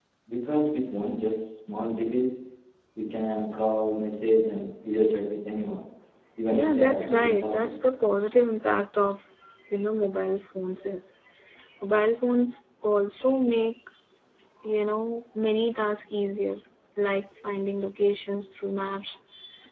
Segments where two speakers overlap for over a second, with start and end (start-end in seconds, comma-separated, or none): 6.5-7.7